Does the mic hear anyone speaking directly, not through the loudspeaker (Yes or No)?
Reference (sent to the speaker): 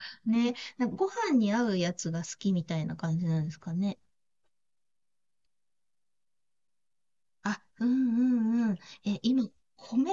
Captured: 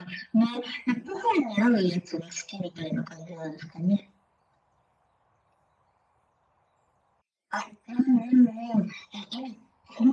No